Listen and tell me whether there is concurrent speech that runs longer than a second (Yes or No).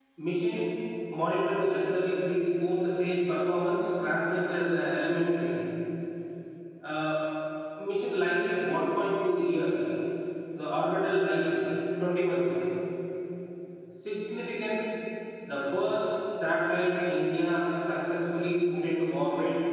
No